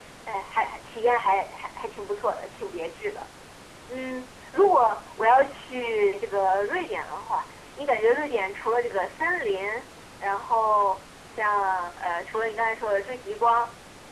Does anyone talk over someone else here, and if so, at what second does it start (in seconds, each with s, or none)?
none